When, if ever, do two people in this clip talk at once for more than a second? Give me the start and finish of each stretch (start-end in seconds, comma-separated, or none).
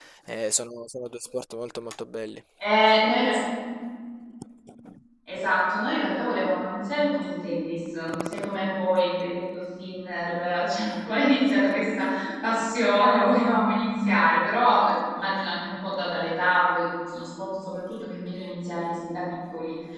none